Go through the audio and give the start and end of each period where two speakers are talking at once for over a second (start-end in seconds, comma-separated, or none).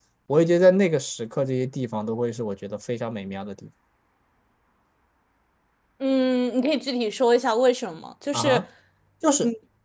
none